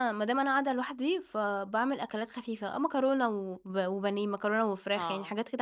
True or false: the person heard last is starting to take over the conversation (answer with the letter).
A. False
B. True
A